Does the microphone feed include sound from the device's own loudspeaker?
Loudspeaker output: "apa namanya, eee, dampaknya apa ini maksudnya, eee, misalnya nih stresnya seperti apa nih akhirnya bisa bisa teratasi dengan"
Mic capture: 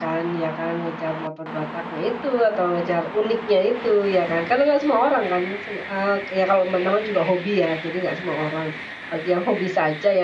No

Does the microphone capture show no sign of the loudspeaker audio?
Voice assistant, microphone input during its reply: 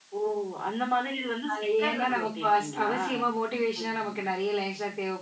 No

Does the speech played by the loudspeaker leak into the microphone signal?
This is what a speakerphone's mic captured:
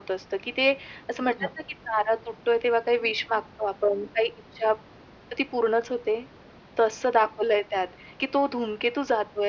Yes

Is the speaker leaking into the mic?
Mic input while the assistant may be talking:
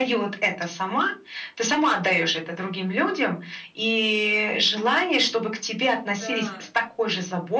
Yes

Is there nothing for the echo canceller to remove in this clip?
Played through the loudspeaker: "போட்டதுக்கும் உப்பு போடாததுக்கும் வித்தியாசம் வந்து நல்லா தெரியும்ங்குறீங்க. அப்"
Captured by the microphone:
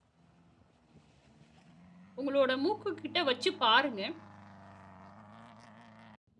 Yes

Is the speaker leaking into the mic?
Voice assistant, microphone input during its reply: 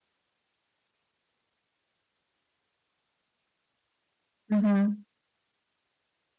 No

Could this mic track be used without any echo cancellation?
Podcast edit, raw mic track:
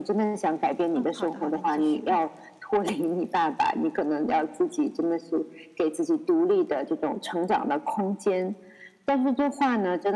No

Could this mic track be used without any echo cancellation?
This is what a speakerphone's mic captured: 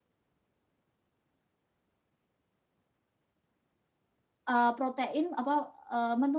Yes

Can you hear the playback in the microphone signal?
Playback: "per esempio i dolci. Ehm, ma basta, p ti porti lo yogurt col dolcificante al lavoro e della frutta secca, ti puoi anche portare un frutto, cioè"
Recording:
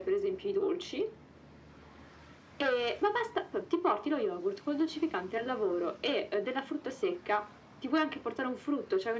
Yes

